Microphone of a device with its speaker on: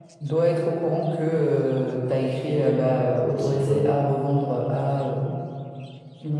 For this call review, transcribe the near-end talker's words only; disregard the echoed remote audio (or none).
des sites web.